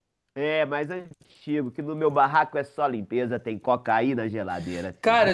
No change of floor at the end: No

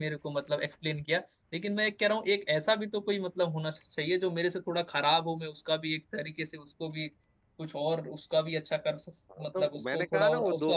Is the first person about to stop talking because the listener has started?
Yes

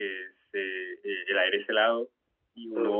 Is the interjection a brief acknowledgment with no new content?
Yes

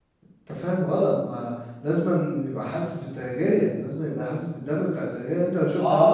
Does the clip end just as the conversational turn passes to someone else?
Yes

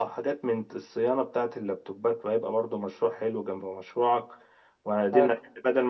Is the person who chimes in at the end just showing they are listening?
Yes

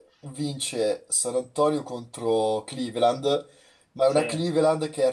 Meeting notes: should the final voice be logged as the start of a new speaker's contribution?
No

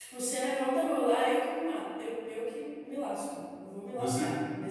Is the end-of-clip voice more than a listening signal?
Yes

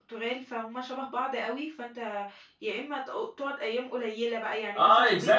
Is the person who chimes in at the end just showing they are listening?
No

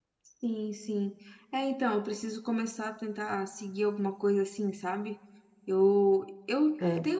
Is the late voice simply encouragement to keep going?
Yes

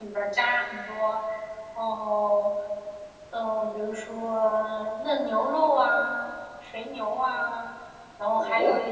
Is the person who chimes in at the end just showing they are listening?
Yes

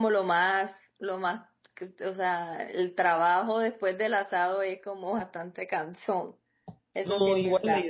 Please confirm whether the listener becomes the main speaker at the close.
Yes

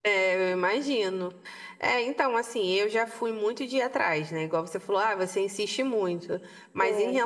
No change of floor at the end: Yes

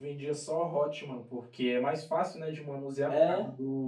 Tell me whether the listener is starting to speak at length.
No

